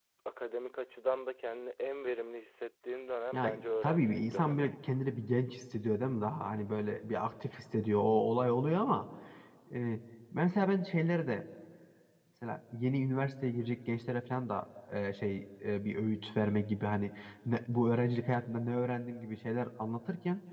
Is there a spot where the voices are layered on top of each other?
Yes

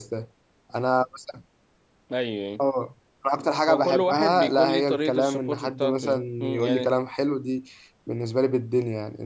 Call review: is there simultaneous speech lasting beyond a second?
Yes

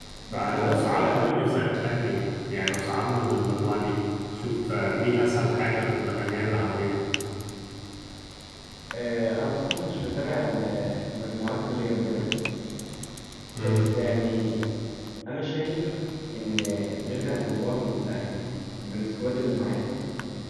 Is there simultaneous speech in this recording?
Yes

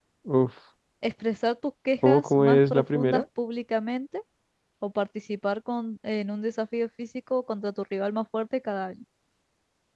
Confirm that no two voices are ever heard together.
No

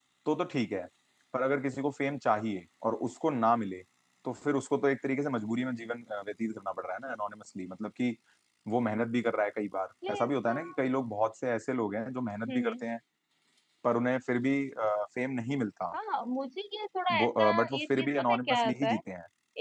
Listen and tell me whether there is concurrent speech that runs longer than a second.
Yes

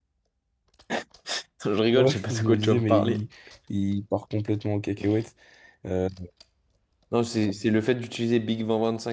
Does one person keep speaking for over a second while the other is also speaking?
Yes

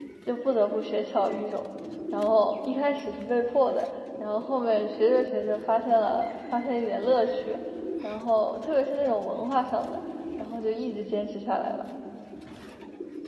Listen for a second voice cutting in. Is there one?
No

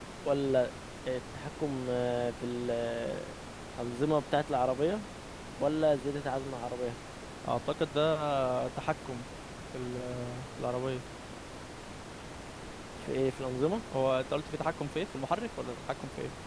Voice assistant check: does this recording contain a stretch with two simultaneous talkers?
No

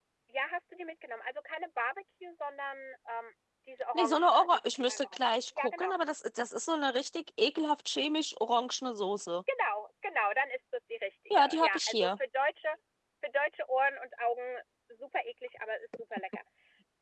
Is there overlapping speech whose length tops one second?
Yes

